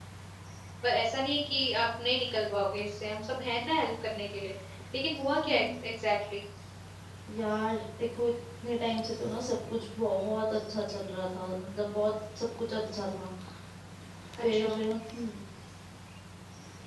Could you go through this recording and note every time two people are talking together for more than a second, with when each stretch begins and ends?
none

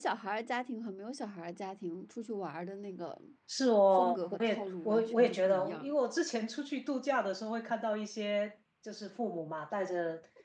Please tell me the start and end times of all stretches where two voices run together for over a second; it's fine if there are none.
3.9-5.9

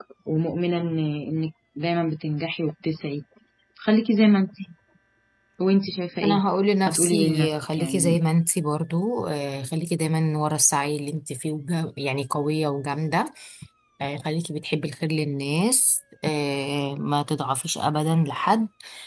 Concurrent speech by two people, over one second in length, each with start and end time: 6.9-8.2

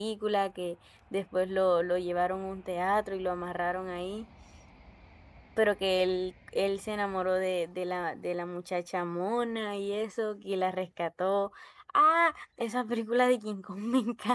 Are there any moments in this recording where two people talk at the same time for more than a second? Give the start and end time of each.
none

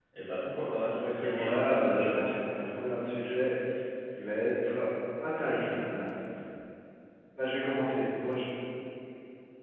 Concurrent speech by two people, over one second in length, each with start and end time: 0.9-2.5

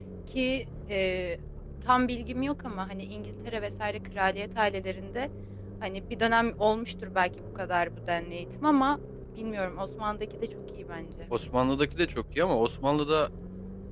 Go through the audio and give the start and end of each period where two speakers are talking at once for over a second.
none

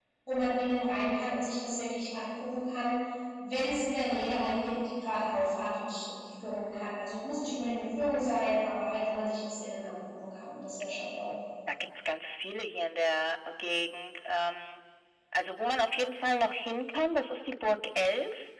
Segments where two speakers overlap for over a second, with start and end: none

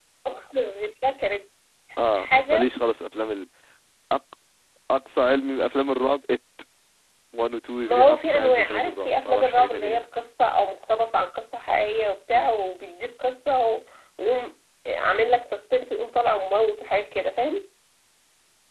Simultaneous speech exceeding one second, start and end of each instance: 7.8-10.0

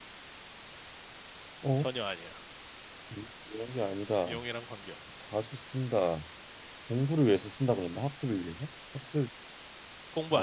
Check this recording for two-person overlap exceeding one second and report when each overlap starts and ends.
none

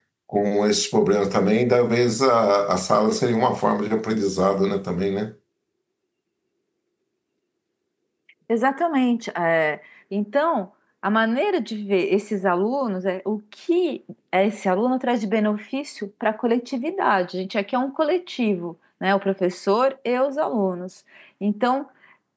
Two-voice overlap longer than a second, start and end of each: none

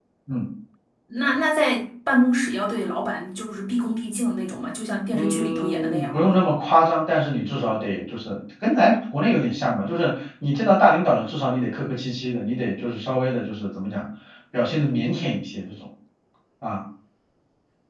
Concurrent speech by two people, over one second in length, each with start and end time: 5.1-6.4

